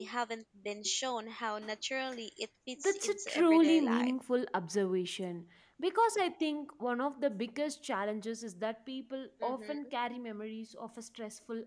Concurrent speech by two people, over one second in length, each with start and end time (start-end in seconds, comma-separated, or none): 2.8-4.1